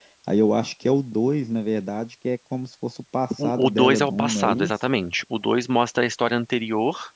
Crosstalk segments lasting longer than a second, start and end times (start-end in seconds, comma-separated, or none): 3.4-4.7